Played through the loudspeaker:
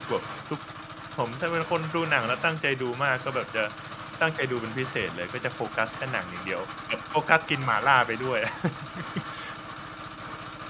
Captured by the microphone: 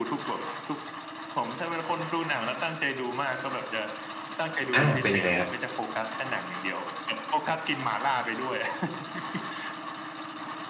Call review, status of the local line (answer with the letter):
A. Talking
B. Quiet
A